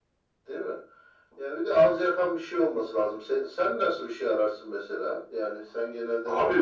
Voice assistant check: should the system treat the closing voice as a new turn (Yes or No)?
Yes